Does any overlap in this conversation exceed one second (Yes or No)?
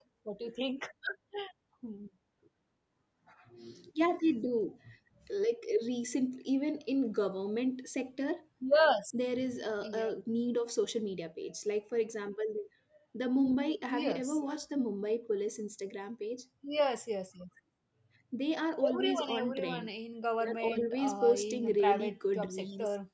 Yes